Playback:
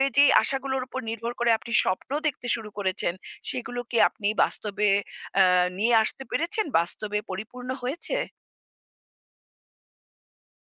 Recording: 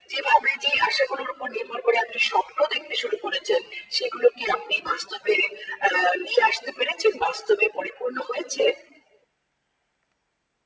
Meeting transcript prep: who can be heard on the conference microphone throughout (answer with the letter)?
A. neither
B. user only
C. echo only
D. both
C